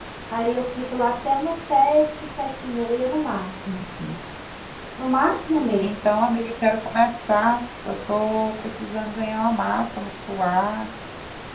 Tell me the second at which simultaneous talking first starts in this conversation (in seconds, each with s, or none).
none